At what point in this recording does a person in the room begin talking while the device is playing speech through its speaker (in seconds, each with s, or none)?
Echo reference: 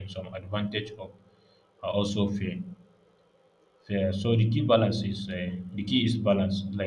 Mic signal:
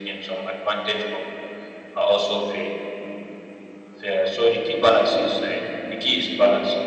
none